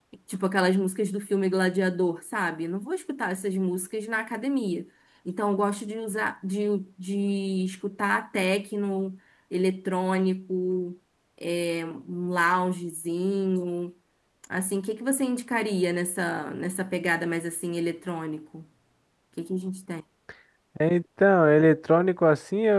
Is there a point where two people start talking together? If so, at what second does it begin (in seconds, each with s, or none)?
none